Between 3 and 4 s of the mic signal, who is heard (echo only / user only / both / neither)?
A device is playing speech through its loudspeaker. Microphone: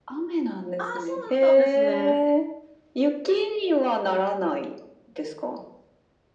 echo only